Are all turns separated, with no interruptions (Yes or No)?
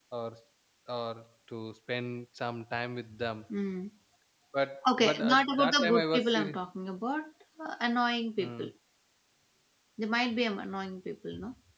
No